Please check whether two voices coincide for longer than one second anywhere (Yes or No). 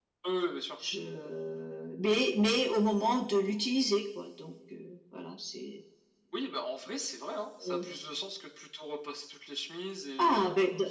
No